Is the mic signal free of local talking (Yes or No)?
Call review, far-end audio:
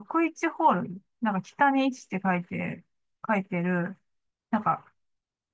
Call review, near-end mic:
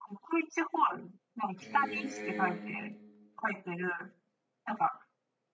No